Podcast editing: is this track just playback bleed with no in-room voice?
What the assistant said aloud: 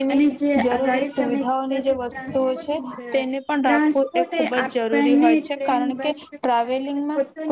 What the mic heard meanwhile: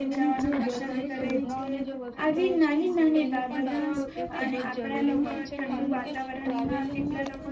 No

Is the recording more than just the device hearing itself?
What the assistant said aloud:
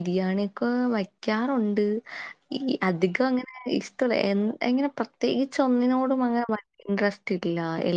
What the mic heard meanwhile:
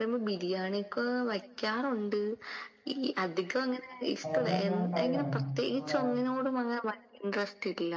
Yes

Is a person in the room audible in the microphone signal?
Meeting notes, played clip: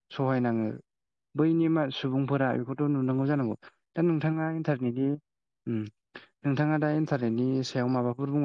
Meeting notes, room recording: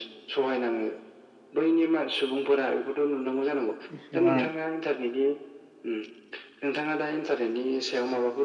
Yes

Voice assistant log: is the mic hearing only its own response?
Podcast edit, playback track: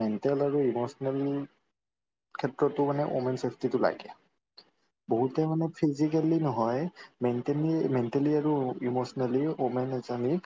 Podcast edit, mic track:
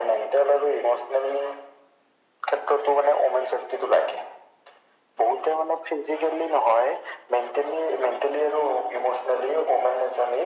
Yes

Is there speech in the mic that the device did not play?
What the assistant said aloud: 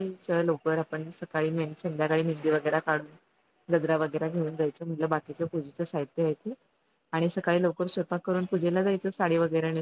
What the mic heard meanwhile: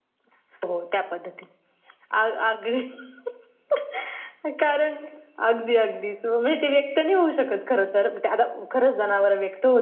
Yes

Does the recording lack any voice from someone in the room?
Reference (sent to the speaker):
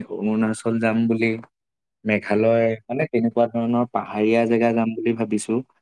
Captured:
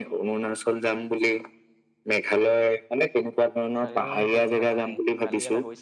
No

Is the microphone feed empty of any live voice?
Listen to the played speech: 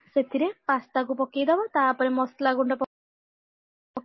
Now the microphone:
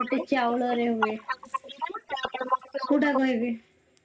No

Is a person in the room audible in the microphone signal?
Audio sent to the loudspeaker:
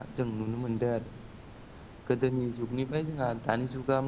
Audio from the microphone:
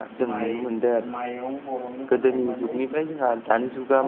Yes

